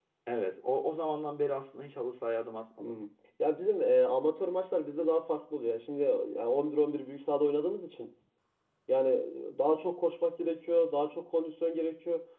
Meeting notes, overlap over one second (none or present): none